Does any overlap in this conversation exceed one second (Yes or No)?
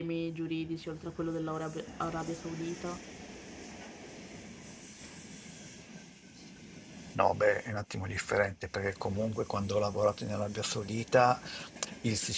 No